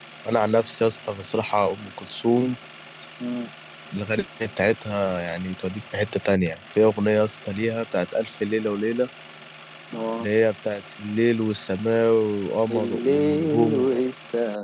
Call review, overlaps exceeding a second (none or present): present